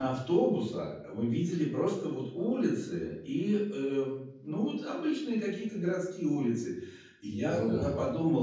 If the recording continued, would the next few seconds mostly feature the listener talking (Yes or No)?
No